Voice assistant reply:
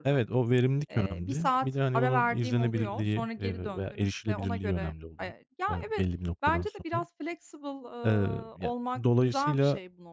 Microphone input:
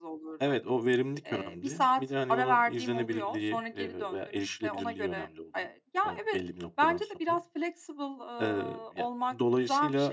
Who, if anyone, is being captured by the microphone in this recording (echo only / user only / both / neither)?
echo only